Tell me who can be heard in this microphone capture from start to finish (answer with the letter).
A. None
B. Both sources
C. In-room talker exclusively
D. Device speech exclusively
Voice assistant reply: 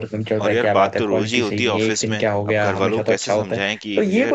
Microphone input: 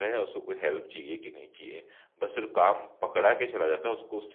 C